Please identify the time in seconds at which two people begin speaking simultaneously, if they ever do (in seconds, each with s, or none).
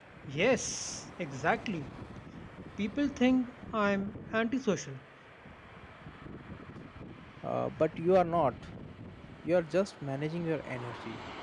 none